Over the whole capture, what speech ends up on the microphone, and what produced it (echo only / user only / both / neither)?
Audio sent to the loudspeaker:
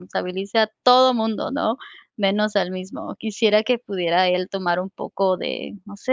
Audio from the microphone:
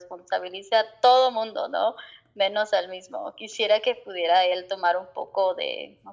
echo only